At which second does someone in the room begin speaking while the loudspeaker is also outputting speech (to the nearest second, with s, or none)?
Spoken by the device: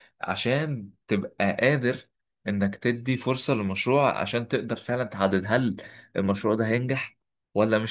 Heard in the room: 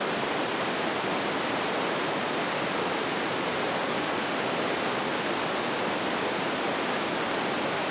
none